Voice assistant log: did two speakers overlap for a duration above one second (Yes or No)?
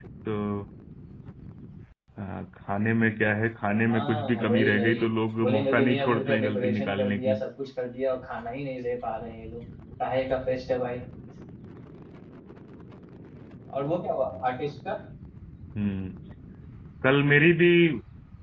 Yes